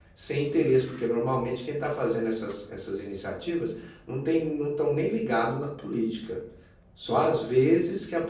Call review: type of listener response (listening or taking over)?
listening